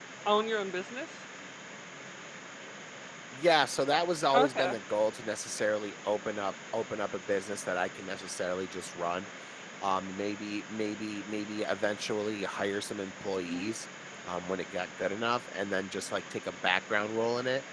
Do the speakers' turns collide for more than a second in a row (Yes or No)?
No